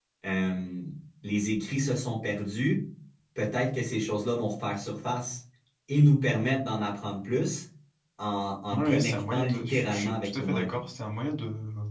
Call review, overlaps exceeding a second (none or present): present